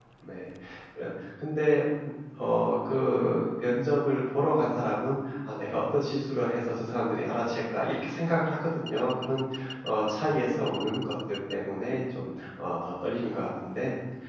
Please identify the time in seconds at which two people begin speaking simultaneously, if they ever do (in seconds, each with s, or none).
none